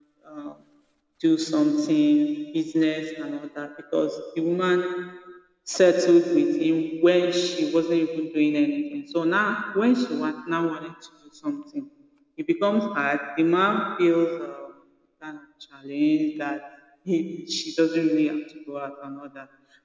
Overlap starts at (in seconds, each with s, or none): none